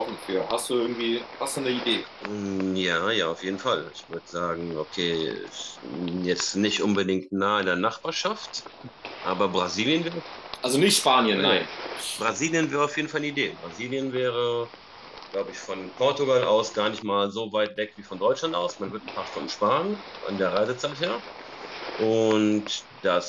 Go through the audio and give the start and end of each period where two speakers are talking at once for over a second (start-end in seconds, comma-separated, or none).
none